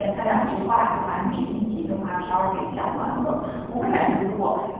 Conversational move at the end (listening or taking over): listening